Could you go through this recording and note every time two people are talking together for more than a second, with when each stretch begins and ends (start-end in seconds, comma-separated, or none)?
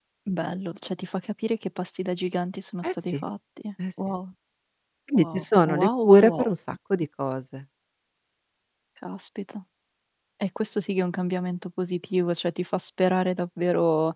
5.1-6.5